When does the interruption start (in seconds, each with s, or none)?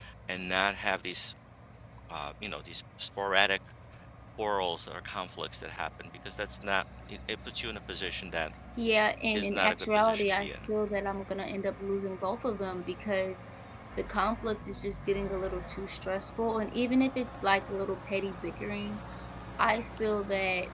9.3 s